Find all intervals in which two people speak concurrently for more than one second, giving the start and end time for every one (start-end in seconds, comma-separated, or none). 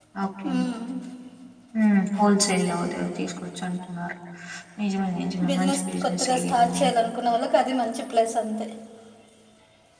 5.5-6.8